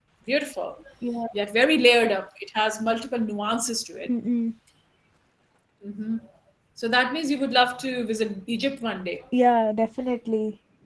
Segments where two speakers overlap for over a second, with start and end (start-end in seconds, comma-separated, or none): none